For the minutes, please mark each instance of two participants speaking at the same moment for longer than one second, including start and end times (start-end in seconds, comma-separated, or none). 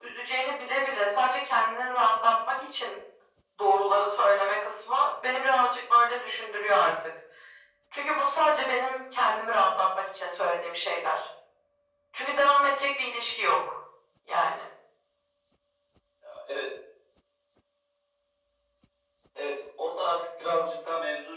none